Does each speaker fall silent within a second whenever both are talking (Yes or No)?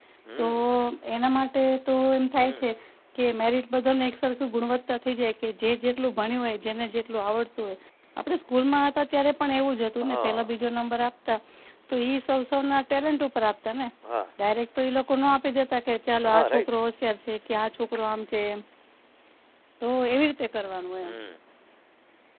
Yes